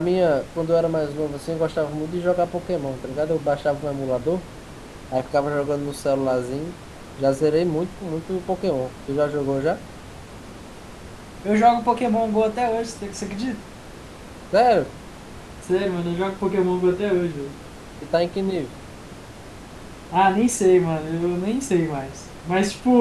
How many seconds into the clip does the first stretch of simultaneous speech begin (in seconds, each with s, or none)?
none